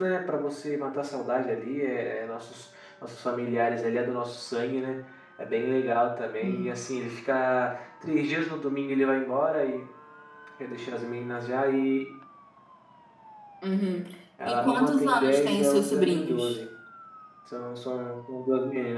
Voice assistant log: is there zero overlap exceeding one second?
No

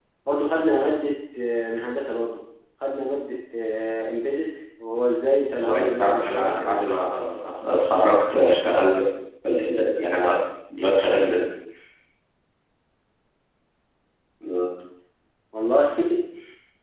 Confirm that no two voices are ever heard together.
No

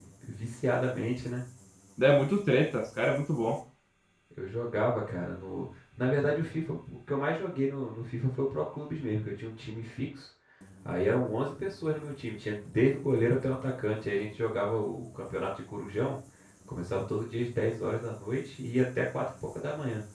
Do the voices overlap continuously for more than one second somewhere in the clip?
No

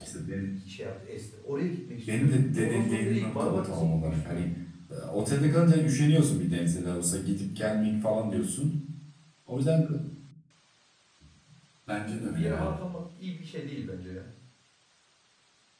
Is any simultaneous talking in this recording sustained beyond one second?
Yes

